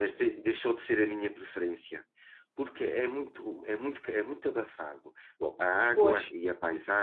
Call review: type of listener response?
listening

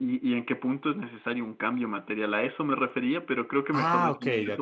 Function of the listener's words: taking over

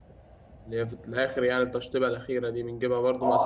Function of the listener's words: taking over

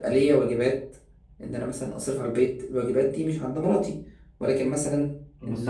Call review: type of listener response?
taking over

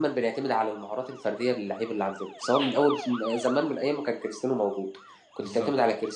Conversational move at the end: listening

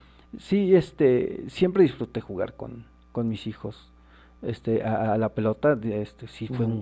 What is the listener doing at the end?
listening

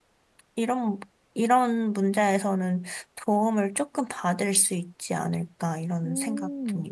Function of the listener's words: taking over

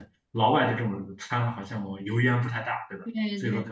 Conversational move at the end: listening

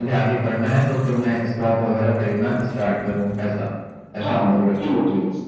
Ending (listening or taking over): taking over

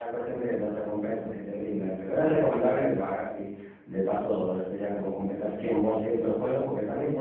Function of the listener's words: listening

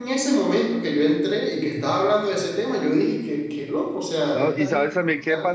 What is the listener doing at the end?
taking over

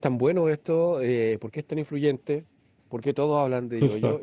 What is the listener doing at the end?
listening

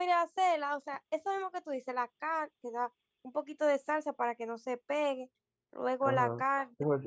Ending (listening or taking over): taking over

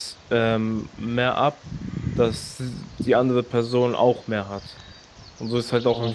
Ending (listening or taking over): taking over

